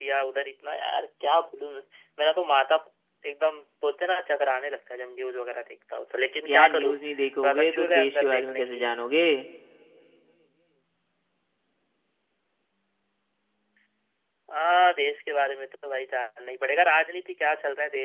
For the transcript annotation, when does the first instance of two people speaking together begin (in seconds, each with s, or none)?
6.5 s